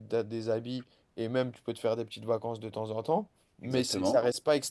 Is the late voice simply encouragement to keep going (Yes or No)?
Yes